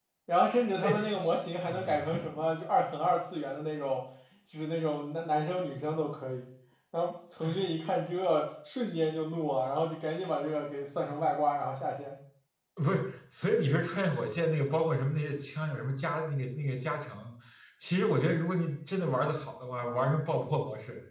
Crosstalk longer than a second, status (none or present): none